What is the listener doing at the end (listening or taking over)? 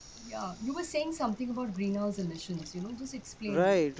taking over